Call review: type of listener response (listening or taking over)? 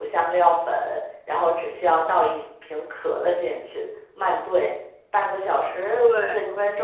listening